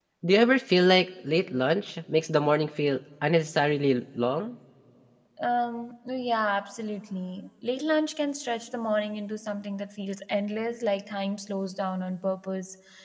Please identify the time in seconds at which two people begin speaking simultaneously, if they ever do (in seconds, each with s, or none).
none